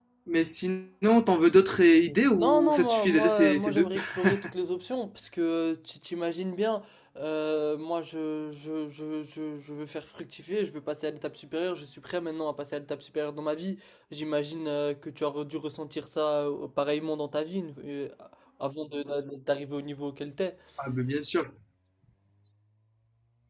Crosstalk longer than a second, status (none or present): present